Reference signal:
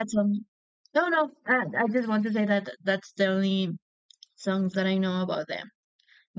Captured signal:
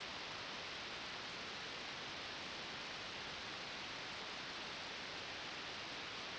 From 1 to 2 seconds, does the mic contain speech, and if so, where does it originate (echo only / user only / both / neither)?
neither